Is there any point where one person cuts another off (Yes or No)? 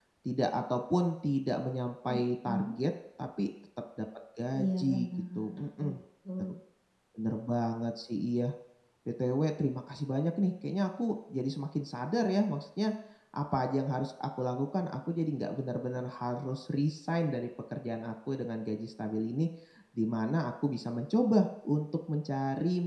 Yes